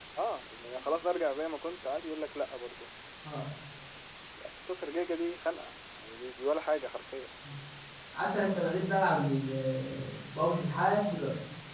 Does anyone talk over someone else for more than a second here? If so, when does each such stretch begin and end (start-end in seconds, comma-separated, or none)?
none